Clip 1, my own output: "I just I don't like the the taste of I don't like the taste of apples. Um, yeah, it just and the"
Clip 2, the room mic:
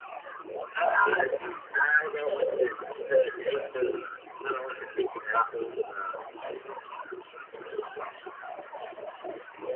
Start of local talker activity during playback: none

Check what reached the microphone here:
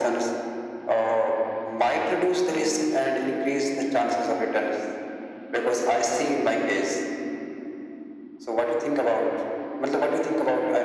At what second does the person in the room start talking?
none

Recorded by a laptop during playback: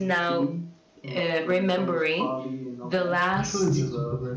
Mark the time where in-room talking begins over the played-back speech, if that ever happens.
3.4 s

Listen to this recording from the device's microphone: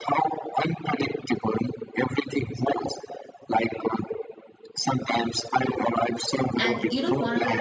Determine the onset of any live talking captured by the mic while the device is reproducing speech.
6.6 s

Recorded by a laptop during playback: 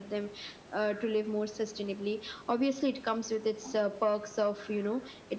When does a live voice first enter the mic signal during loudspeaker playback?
none

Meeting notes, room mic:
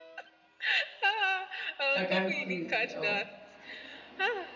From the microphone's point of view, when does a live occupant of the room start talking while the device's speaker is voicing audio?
1.9 s

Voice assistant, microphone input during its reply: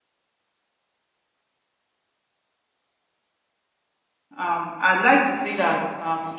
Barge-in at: 4.4 s

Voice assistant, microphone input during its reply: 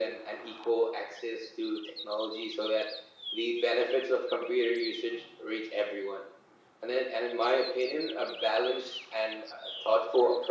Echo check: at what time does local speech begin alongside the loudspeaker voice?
none

